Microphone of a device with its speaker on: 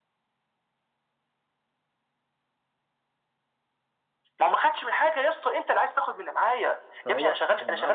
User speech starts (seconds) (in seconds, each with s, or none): 7.0 s